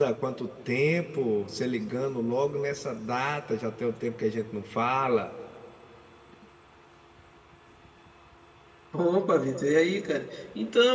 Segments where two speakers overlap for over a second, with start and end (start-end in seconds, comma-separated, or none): none